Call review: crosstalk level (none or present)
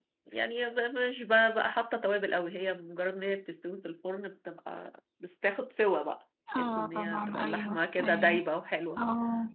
present